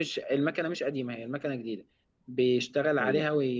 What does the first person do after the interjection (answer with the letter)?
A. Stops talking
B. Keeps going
B